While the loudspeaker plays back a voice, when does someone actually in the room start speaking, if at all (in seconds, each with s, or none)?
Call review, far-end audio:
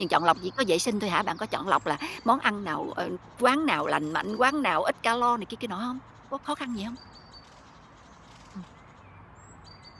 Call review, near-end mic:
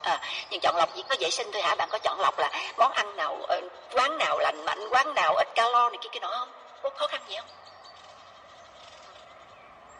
none